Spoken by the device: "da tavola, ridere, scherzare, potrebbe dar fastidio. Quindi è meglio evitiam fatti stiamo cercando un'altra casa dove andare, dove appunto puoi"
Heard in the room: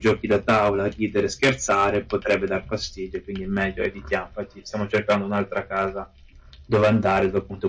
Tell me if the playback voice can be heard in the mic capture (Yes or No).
Yes